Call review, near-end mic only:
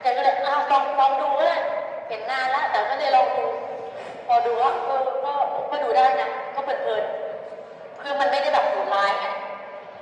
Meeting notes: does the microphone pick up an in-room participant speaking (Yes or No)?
No